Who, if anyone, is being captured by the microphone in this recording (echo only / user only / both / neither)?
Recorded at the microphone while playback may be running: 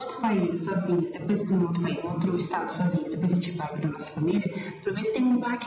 echo only